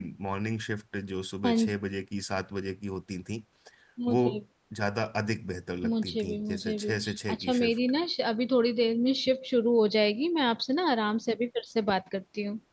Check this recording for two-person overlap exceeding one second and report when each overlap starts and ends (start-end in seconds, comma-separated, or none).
5.8-7.8